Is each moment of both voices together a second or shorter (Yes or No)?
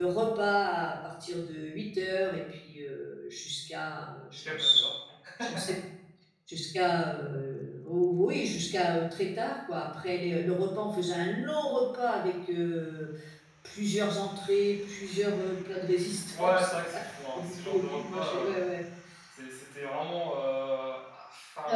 No